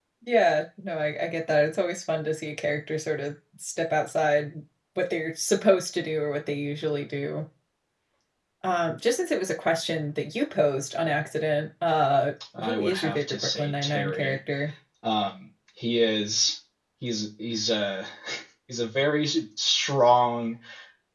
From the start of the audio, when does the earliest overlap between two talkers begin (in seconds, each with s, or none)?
12.5 s